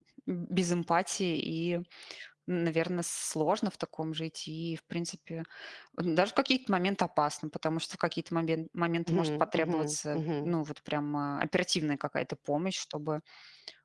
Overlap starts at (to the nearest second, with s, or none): 9 s